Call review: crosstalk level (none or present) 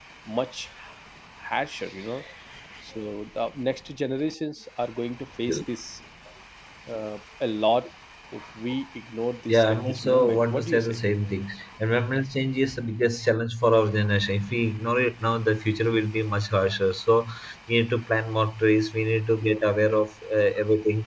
present